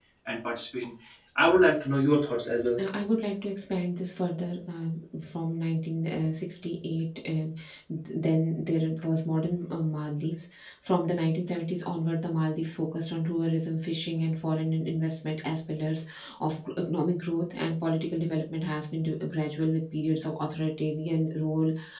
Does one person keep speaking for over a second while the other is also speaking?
No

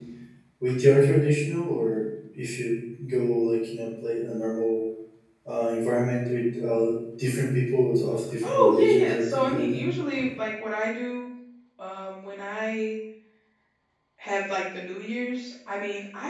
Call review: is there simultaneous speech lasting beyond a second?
Yes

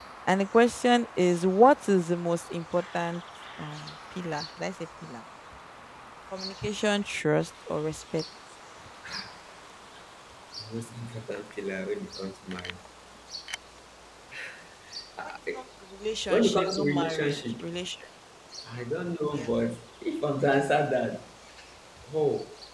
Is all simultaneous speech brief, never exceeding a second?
No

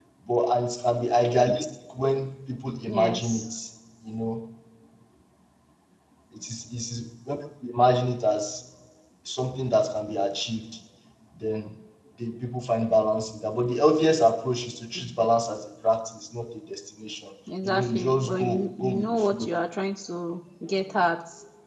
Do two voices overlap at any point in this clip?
Yes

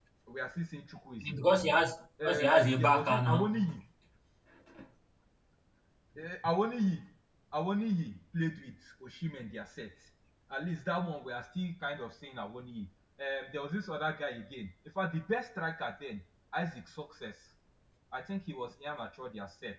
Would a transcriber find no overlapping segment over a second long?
No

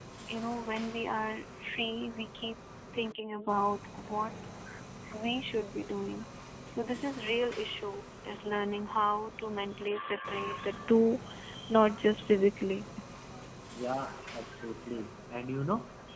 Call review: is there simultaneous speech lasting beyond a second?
No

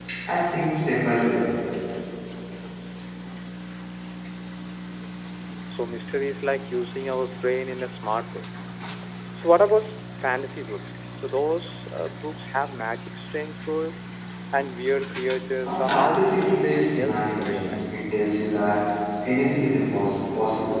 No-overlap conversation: No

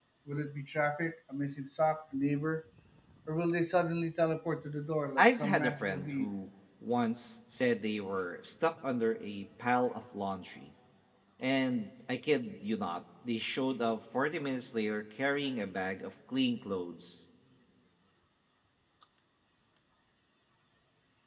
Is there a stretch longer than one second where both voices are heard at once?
Yes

